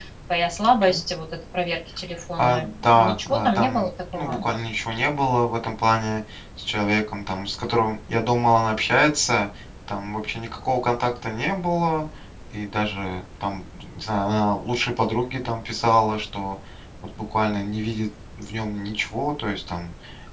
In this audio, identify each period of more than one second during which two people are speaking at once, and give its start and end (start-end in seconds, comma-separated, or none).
2.4-4.5